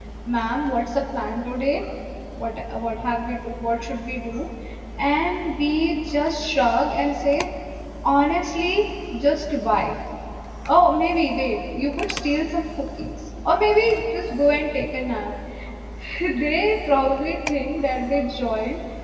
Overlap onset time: none

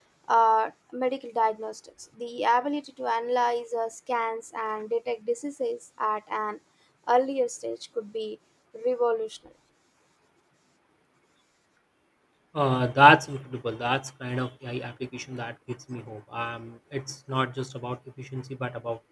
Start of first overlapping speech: none

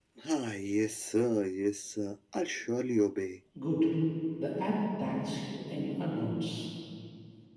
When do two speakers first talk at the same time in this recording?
none

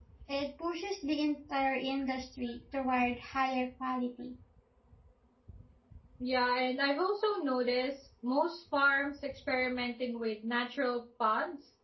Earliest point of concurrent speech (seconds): none

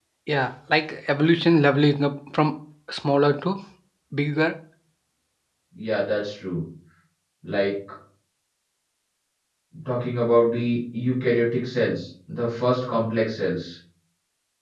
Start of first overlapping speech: none

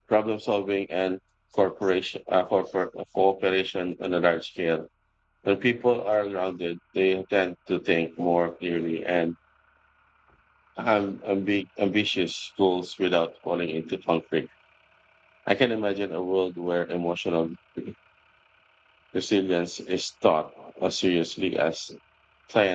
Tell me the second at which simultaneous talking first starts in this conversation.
none

